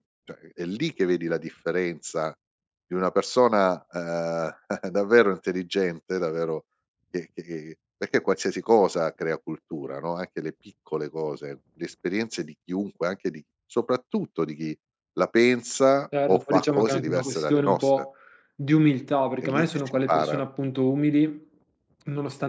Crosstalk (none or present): present